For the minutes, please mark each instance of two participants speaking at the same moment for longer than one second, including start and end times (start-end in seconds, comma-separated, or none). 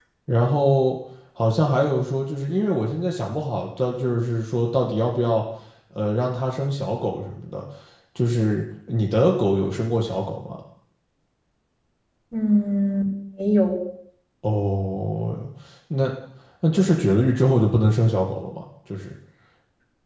none